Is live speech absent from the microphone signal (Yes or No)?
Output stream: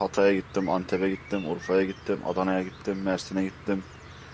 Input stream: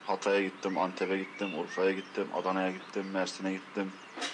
Yes